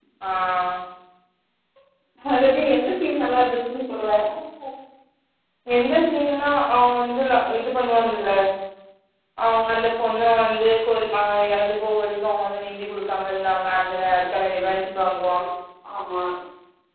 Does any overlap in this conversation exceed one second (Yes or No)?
No